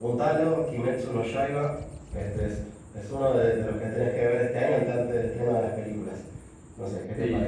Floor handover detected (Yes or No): Yes